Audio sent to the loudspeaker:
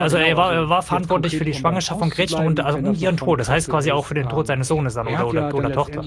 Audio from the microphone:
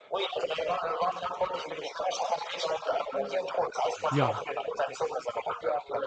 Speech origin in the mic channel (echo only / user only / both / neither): both